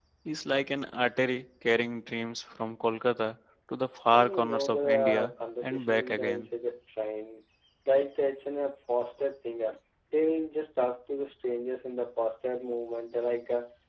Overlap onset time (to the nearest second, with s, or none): 4 s